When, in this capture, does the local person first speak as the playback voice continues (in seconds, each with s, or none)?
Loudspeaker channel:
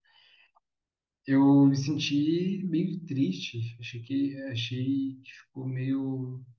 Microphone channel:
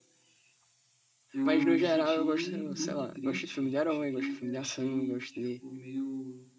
1.4 s